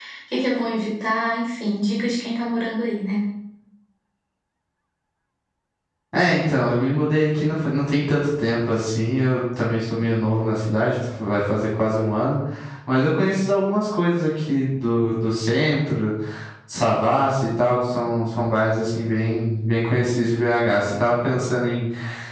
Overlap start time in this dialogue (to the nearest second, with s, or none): none